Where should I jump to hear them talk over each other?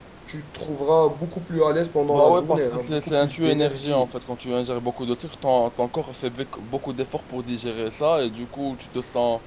2.1 s

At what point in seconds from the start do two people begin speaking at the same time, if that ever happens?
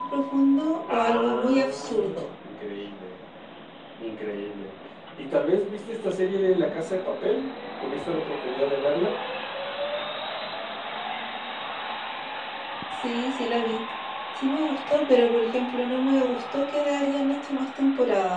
0.9 s

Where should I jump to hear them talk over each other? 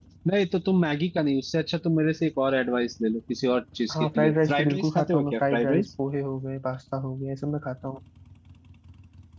3.9 s

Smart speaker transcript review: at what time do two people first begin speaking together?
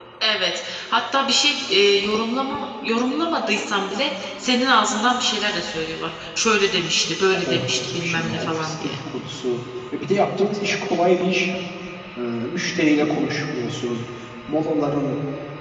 7.3 s

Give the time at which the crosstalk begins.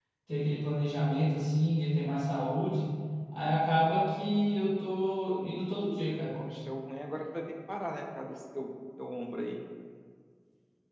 none

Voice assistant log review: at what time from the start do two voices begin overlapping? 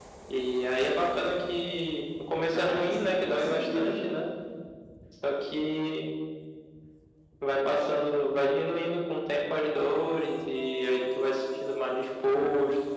2.5 s

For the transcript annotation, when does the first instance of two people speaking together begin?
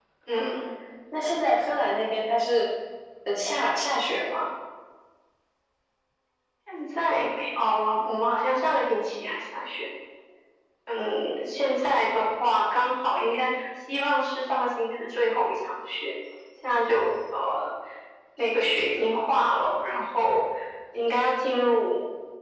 none

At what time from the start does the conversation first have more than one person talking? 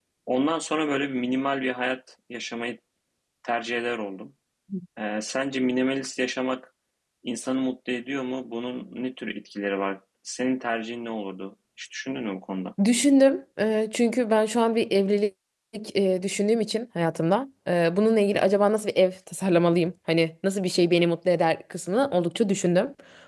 none

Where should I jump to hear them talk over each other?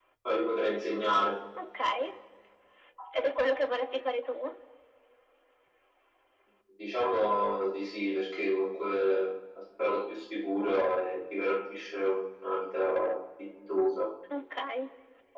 none

